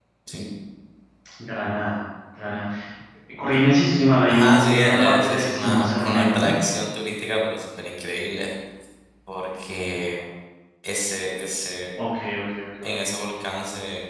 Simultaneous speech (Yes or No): Yes